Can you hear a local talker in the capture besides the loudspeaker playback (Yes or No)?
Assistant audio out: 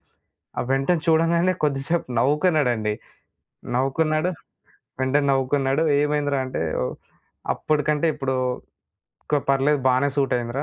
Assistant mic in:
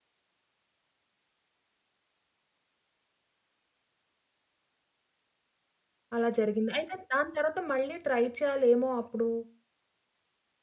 Yes